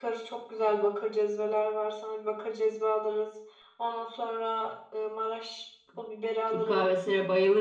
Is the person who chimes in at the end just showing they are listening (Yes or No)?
No